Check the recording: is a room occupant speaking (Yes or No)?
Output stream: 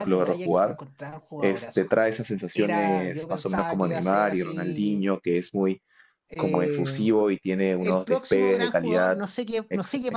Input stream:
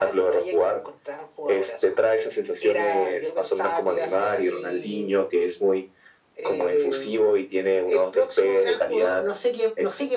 No